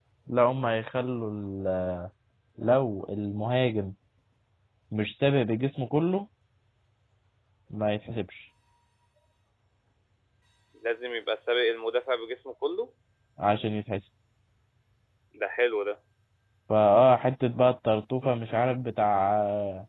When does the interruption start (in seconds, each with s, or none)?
none